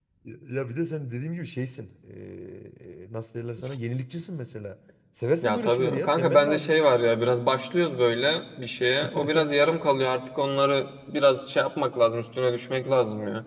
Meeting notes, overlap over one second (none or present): present